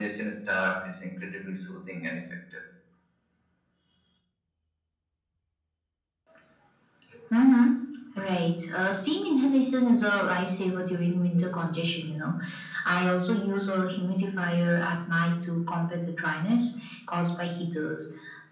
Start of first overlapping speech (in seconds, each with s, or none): none